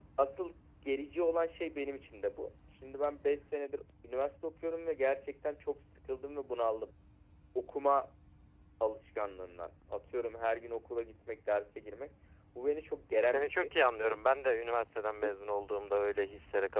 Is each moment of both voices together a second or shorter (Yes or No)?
Yes